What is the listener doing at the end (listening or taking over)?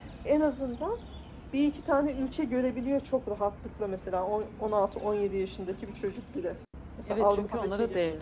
taking over